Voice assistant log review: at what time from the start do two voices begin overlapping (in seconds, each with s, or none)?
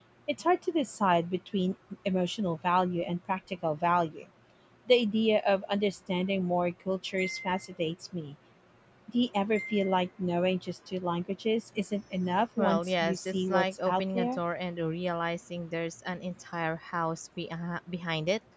12.6 s